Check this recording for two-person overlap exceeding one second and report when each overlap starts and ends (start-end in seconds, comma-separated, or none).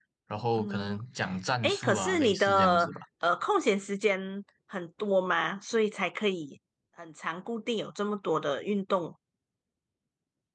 1.6-2.9